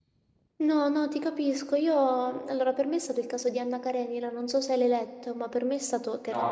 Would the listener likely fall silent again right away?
Yes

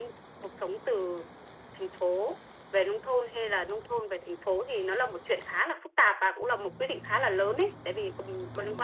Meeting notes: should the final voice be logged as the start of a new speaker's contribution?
No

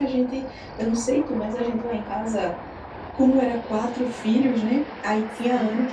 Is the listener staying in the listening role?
Yes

